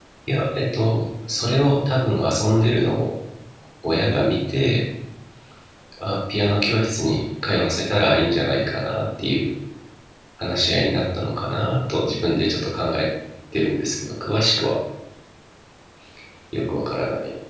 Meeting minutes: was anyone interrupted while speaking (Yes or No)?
No